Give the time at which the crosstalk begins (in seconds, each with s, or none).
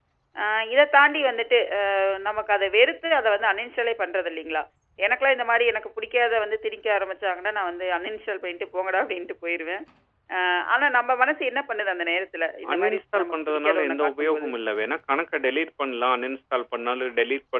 12.6 s